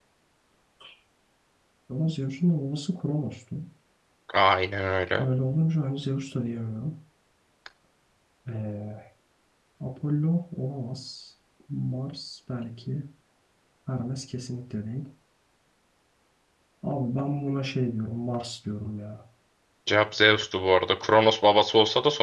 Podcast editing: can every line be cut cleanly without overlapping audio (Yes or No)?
Yes